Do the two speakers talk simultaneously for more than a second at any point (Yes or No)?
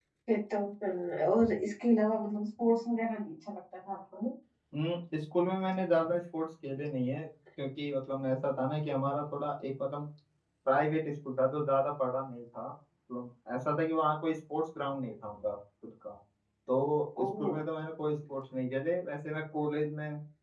No